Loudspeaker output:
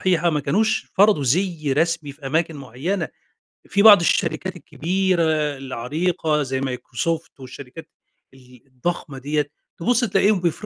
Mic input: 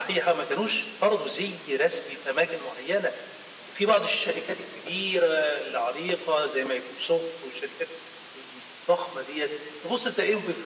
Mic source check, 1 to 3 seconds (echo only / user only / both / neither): echo only